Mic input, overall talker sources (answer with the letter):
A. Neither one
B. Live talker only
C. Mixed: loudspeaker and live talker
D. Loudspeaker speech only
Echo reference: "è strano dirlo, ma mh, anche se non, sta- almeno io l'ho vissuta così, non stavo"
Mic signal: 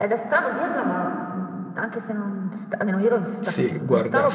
C